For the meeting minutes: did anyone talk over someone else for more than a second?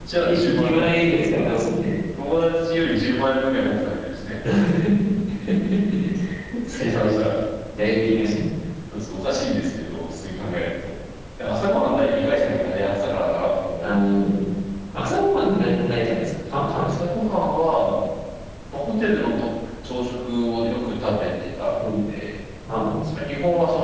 Yes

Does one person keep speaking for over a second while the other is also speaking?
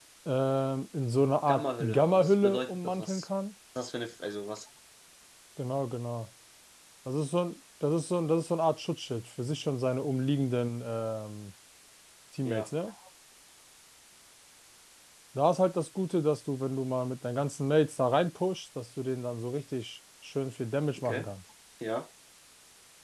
Yes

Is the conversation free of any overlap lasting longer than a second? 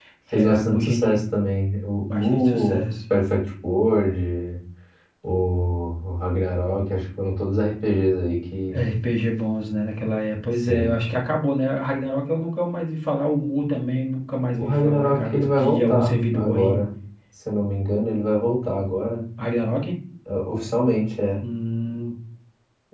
No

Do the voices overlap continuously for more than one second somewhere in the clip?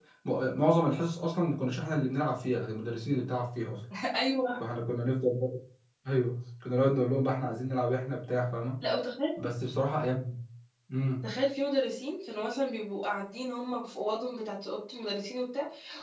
No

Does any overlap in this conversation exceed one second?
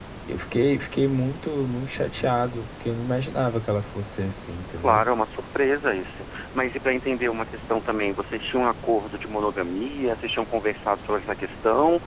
No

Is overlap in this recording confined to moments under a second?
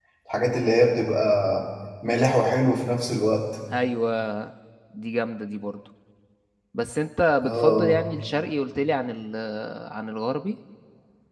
Yes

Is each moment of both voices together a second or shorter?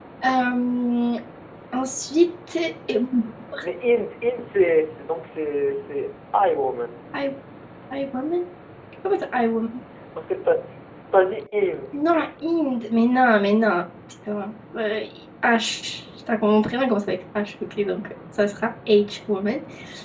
Yes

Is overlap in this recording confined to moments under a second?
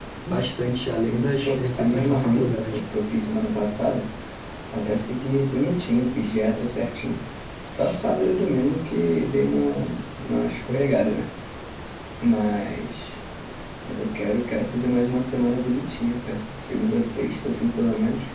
No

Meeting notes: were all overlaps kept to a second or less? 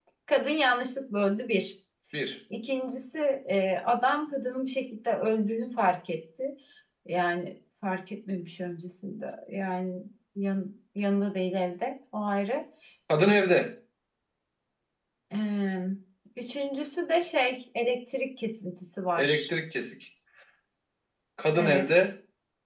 Yes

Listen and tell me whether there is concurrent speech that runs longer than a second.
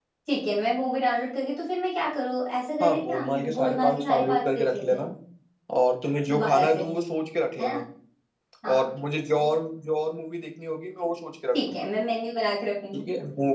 Yes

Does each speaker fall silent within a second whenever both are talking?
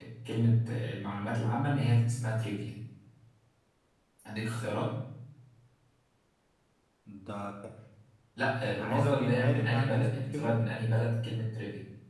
No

